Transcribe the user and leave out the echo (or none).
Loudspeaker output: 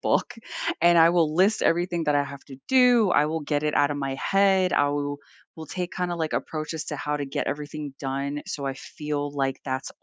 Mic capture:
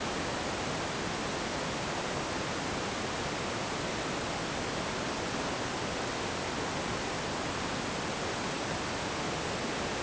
none